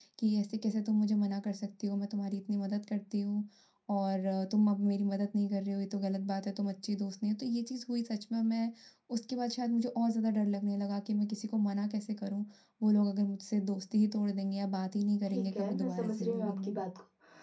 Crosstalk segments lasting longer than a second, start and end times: 15.3-16.8

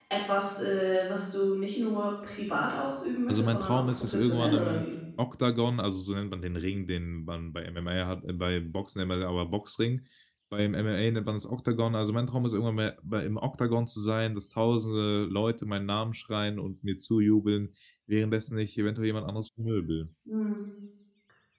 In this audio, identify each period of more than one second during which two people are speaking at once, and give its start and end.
3.3-4.8

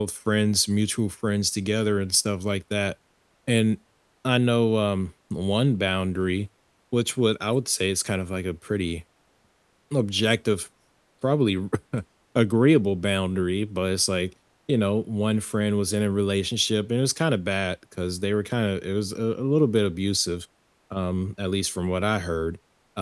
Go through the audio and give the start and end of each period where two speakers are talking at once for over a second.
none

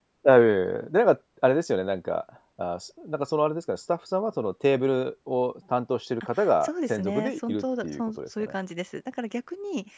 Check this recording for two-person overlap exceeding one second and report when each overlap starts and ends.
6.6-8.5

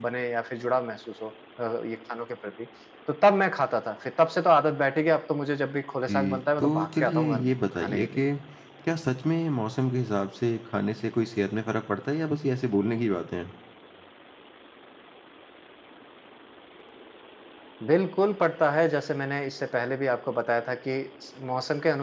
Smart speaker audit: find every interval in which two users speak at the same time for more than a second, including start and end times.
6.1-8.2

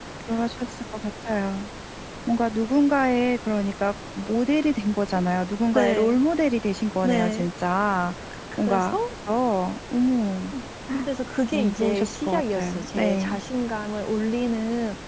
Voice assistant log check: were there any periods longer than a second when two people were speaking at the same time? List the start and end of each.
11.5-13.4

